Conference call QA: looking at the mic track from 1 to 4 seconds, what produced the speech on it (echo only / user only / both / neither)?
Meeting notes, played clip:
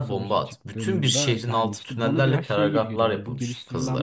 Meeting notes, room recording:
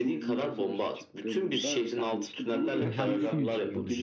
both